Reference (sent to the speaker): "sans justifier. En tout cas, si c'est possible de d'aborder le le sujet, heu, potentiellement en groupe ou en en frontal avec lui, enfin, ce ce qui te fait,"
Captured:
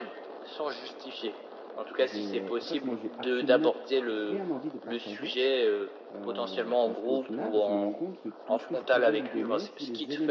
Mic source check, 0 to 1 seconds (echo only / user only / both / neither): echo only